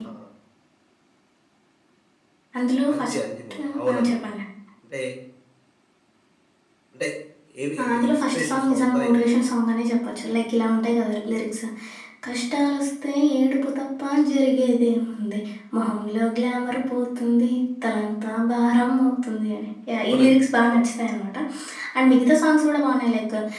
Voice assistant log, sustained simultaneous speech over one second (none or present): present